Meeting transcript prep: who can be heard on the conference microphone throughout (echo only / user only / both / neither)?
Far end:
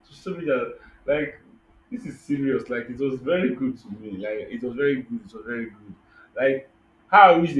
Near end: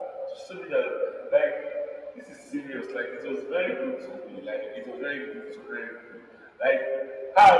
echo only